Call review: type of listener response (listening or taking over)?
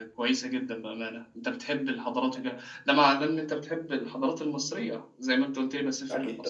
taking over